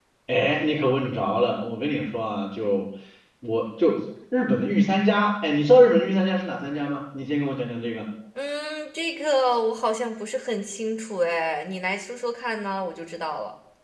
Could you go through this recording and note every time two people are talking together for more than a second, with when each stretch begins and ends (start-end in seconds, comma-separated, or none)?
none